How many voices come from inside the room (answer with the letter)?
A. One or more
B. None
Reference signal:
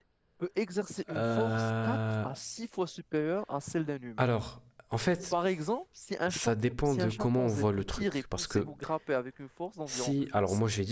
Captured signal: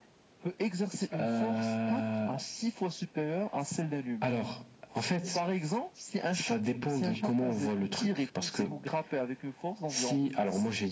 B